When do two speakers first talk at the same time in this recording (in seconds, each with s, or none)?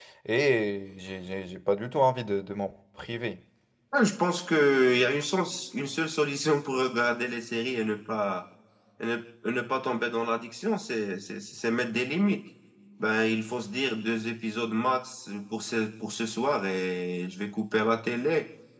none